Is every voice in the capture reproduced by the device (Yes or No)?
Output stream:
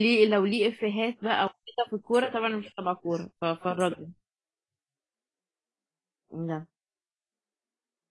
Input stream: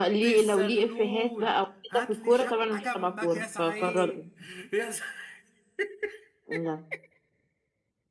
No